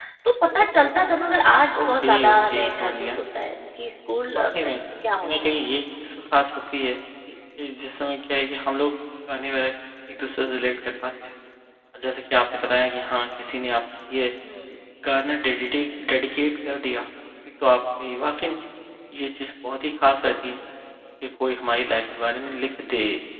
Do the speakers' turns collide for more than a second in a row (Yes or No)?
Yes